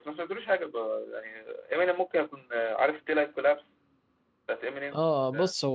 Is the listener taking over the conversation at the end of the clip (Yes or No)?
Yes